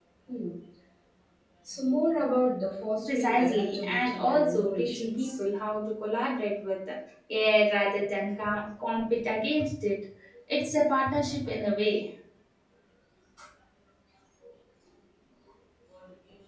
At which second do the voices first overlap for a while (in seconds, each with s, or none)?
3.1 s